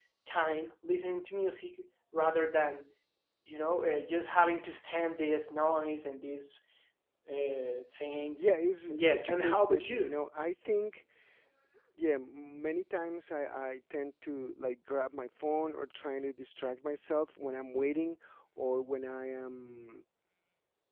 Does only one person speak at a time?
No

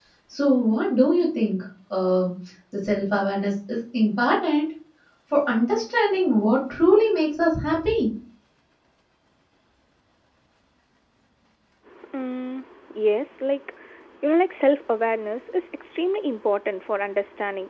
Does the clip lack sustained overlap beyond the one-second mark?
Yes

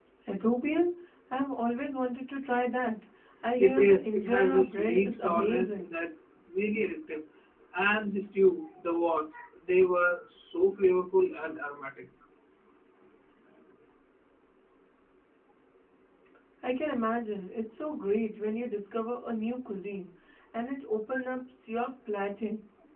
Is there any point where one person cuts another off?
Yes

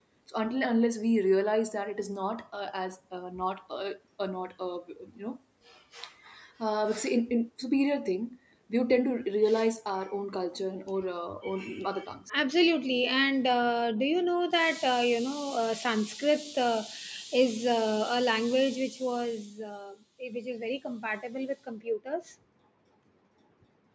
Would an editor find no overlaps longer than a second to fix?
Yes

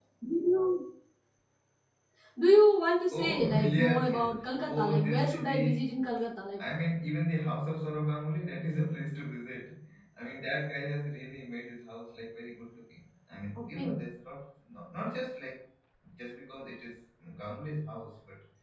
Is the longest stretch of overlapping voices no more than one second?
No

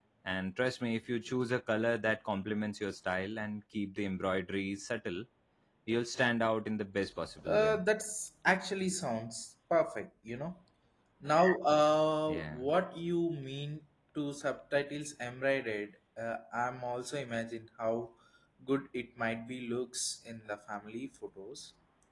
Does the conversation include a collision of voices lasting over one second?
No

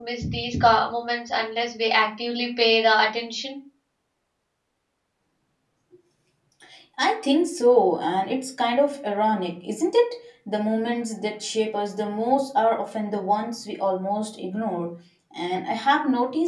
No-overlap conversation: Yes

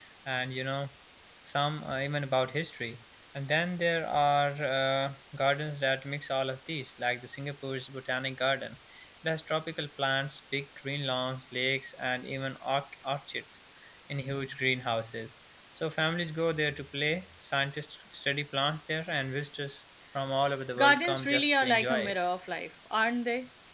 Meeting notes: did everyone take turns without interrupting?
No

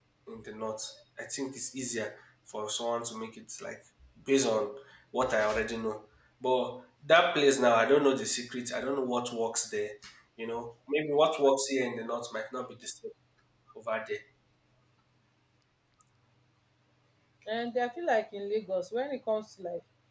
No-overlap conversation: Yes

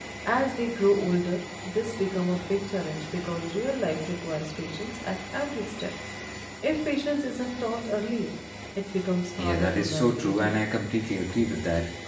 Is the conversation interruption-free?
No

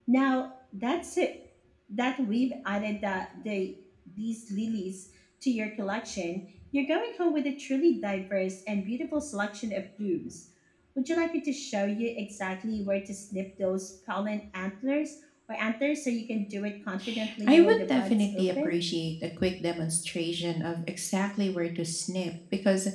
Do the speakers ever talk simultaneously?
Yes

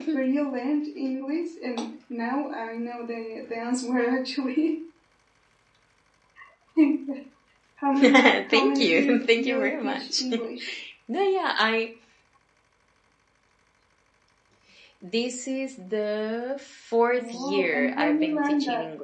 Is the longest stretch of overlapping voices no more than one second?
No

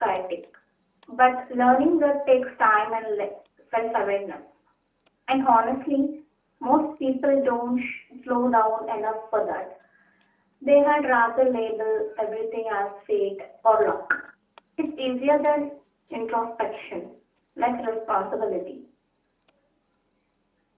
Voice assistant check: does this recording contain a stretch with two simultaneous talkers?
No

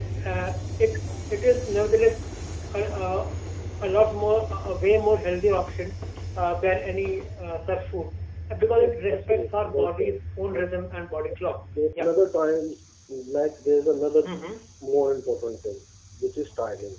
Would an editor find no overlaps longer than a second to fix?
No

